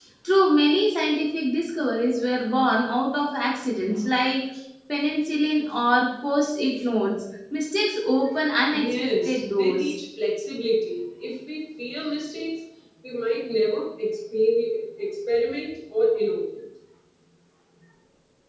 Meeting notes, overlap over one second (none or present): present